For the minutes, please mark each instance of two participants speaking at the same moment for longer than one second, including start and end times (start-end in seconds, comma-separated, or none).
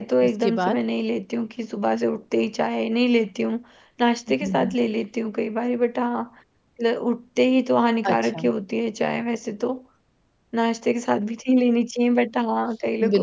none